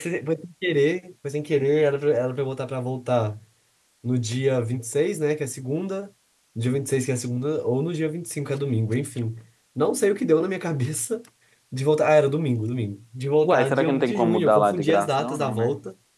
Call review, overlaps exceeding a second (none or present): present